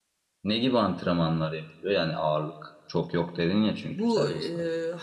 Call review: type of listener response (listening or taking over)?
taking over